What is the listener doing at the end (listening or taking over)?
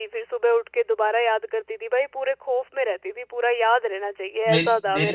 taking over